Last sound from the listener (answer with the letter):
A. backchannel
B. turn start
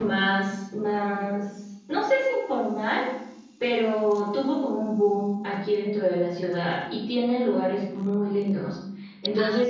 A